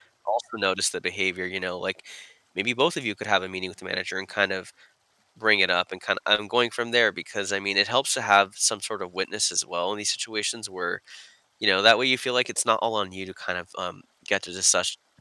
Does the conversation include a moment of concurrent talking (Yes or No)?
No